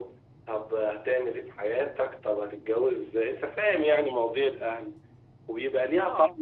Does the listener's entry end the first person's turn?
No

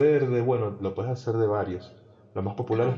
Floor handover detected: No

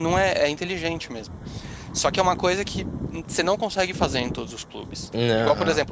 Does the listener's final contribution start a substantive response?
No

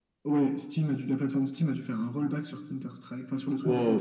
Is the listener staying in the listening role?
No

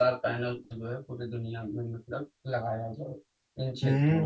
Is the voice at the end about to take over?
Yes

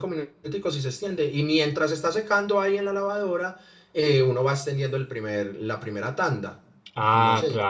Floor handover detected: Yes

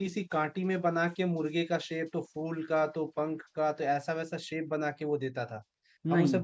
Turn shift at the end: No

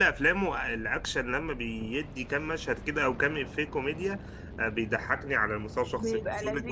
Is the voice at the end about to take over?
No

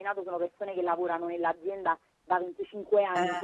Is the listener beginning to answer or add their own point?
No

